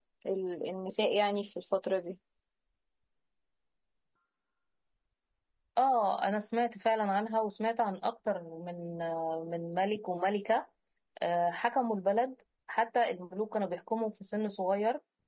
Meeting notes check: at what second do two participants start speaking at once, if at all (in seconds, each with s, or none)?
none